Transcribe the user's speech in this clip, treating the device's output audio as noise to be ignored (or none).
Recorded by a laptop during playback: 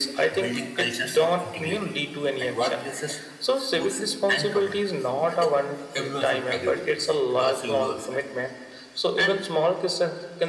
none